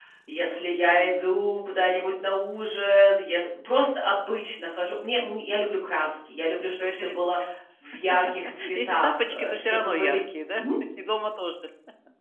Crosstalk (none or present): present